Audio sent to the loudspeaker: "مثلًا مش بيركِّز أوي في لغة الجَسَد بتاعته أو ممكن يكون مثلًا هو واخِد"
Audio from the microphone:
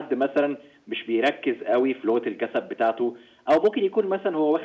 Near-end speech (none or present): none